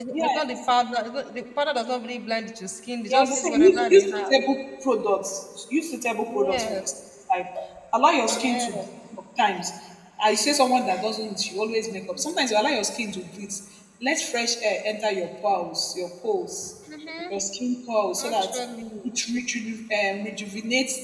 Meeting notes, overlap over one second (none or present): present